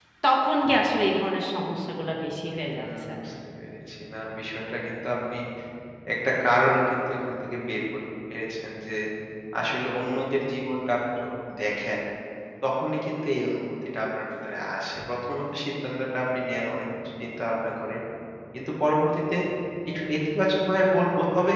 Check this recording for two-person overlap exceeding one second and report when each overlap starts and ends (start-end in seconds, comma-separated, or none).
none